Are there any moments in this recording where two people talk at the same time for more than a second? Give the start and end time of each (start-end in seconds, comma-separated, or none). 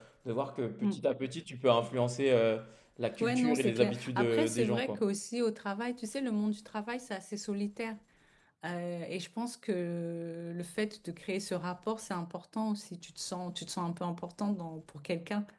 3.2-5.0